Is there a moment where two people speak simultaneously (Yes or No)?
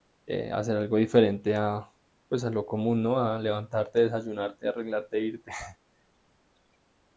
No